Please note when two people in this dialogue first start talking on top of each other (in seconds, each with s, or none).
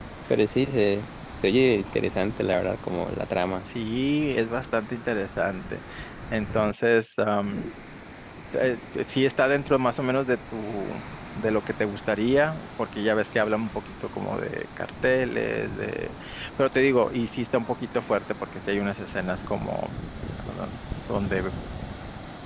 none